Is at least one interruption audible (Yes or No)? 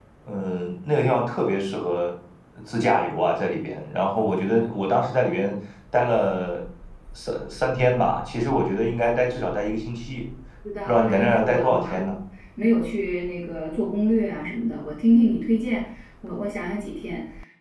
Yes